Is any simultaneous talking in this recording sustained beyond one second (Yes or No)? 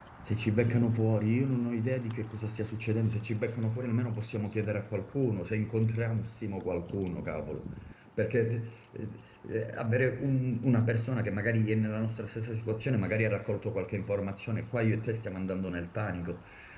No